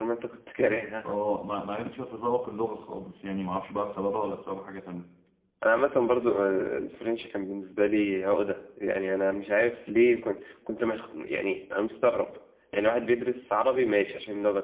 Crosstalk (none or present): none